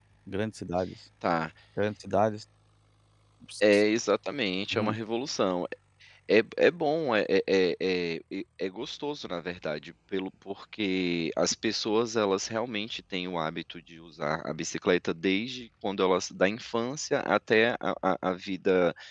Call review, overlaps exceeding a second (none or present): none